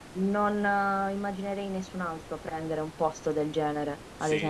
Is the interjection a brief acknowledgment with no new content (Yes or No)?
No